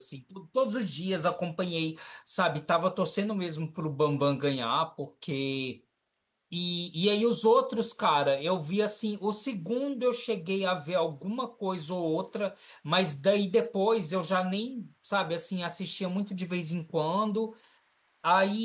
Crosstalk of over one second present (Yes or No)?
No